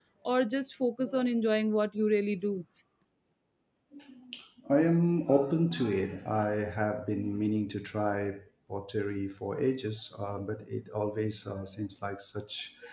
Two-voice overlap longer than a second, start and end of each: none

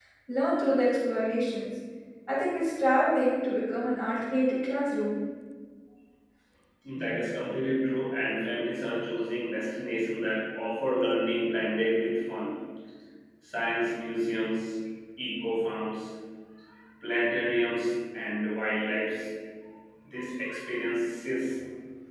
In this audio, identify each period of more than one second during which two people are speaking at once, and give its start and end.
none

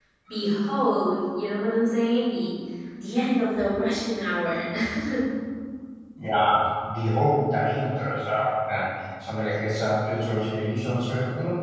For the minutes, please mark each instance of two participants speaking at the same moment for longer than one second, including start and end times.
none

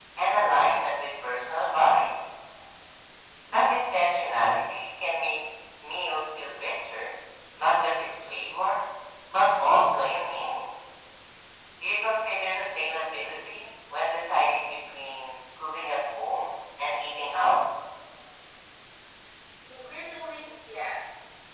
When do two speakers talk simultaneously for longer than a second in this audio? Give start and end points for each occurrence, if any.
none

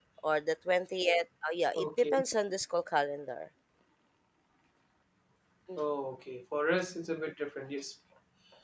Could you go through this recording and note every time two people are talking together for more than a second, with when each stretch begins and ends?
none

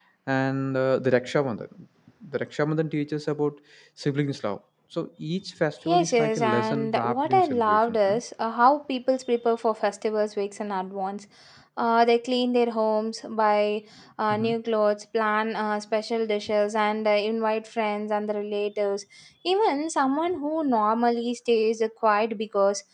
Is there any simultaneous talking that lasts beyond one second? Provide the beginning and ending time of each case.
5.8-8.2

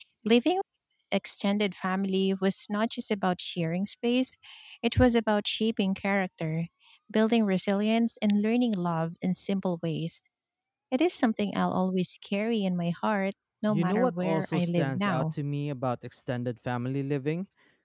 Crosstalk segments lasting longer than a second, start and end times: 13.7-15.2

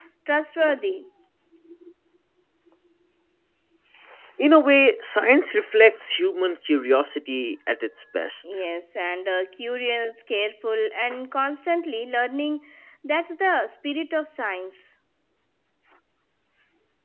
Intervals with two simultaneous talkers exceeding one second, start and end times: none

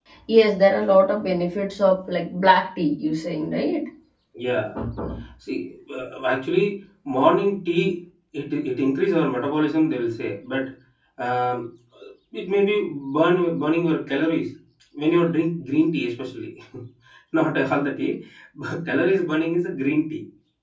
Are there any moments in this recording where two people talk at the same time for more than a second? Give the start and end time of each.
none

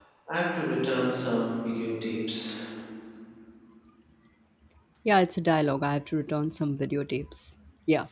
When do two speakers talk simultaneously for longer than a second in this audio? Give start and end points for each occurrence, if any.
none

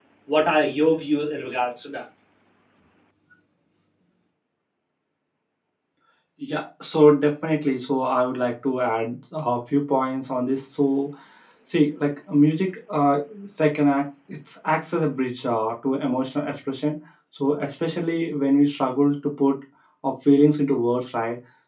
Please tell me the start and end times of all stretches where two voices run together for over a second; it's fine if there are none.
none

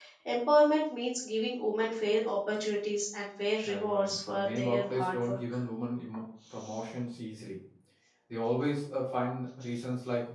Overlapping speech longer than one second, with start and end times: 3.6-5.4

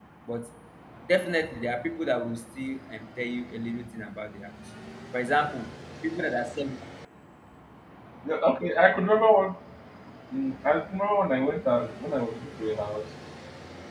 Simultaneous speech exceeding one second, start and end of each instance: none

